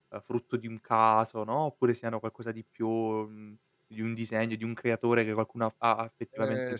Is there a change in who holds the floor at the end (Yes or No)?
Yes